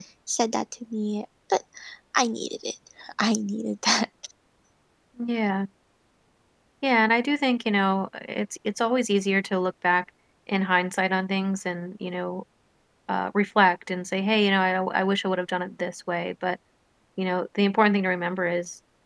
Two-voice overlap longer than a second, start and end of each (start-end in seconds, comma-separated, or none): none